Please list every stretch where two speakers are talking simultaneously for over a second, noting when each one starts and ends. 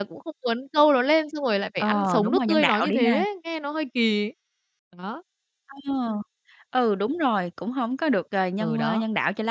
1.8-3.2

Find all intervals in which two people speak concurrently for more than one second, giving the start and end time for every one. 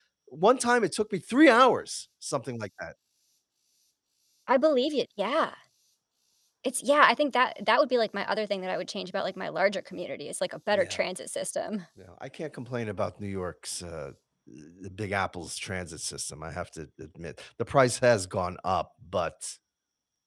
none

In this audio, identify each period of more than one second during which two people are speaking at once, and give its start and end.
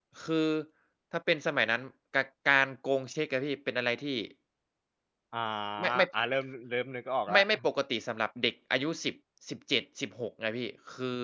none

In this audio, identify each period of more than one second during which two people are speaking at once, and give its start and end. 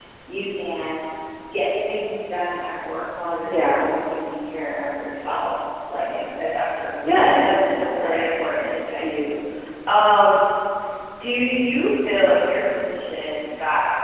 7.1-9.2

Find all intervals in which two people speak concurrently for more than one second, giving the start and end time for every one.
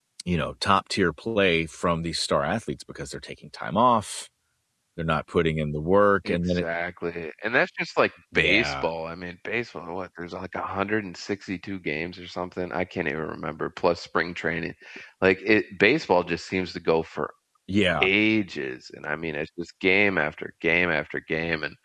none

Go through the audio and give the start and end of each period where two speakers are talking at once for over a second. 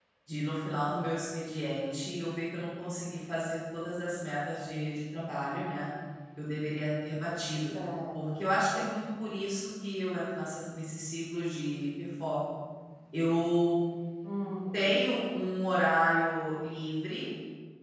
none

